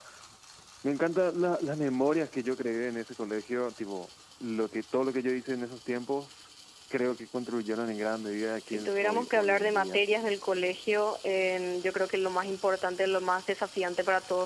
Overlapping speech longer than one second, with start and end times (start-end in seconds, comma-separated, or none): 8.7-10.0